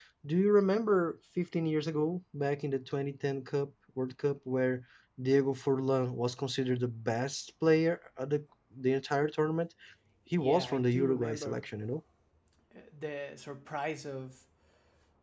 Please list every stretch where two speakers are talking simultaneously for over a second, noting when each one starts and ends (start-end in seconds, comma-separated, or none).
10.4-11.6